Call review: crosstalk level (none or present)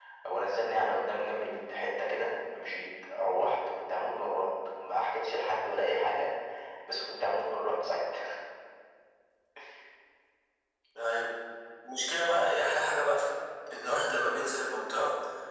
none